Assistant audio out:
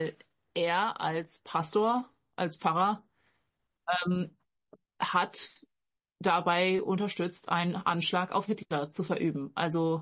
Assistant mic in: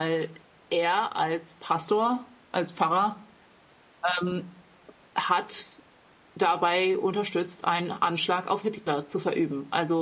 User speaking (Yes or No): No